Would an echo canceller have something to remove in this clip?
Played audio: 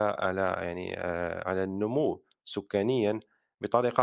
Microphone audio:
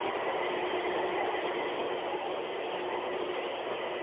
No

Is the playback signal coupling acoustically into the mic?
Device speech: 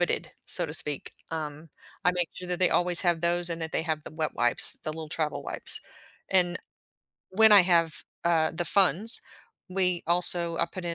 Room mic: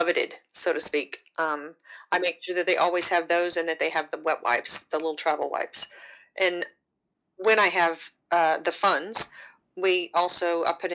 Yes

